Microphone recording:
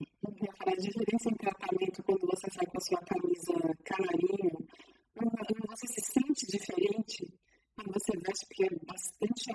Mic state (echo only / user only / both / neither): echo only